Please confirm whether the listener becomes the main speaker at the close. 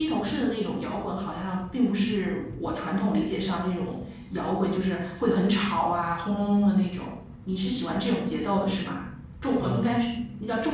No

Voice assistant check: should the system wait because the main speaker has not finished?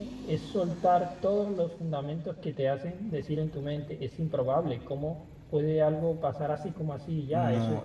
No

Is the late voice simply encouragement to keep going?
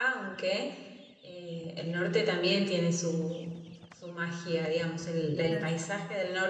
Yes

